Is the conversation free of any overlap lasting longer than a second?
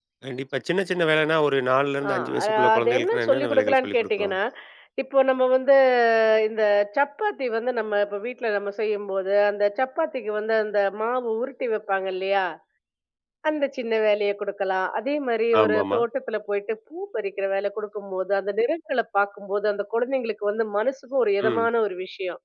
No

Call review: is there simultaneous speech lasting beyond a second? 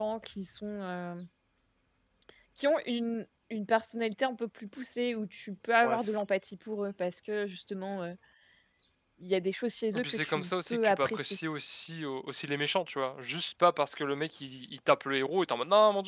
Yes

